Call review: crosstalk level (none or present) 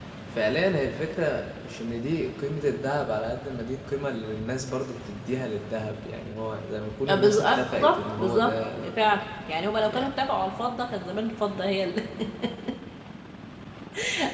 present